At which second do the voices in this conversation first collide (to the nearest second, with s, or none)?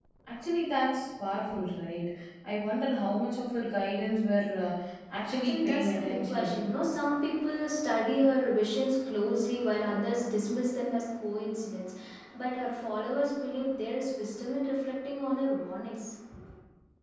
5 s